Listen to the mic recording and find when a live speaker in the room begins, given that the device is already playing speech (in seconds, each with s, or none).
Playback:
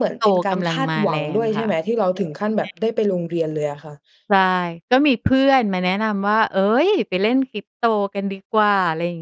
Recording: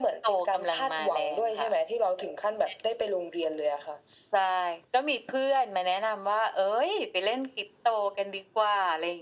none